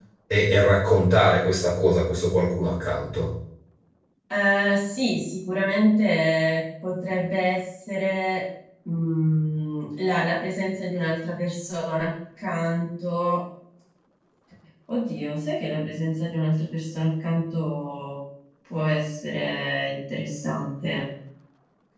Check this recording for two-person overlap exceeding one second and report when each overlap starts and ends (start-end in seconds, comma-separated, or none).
none